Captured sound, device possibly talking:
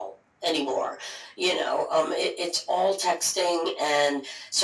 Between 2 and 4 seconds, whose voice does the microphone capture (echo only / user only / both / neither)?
echo only